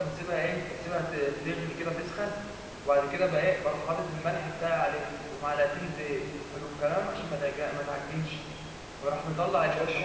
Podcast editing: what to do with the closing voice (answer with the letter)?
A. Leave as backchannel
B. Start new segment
A